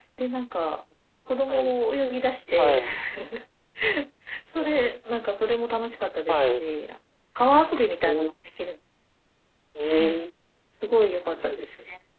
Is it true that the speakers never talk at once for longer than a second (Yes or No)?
Yes